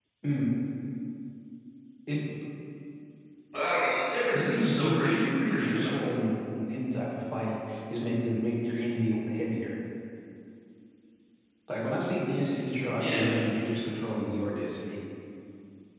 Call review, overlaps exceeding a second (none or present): present